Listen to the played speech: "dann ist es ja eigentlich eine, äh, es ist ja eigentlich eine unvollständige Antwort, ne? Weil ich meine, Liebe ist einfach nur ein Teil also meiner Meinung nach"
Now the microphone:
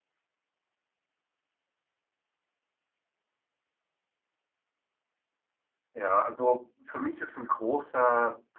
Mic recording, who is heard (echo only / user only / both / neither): user only